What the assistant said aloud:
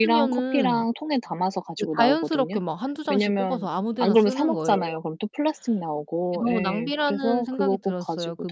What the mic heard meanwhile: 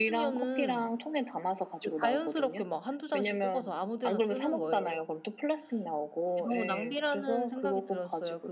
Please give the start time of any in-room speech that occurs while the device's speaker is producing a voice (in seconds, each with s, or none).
none